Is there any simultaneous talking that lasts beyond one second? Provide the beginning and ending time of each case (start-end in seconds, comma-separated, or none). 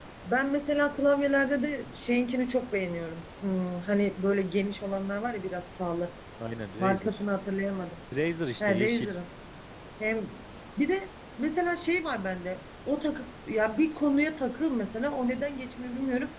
none